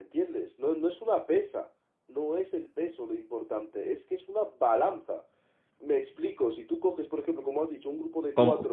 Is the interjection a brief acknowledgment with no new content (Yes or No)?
Yes